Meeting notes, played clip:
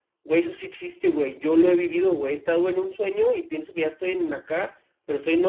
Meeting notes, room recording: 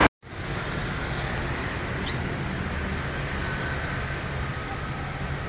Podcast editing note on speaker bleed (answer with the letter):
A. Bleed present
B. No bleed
B